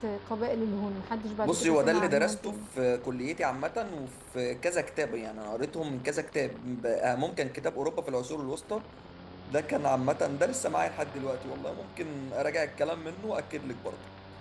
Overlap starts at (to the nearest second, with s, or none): 1 s